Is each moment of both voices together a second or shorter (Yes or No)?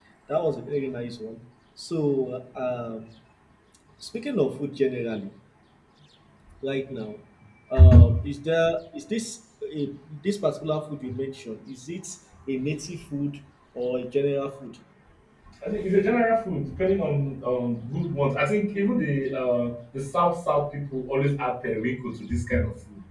Yes